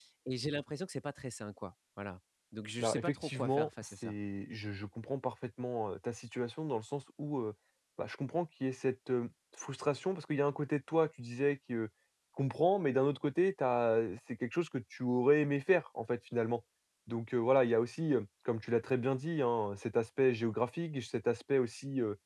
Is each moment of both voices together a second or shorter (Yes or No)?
No